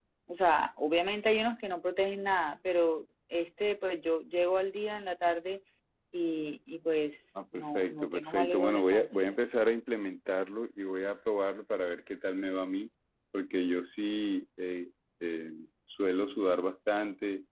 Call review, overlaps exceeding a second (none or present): present